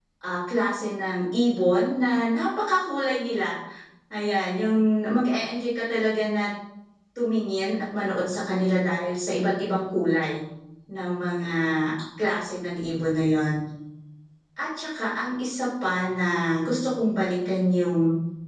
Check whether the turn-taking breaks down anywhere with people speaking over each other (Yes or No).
No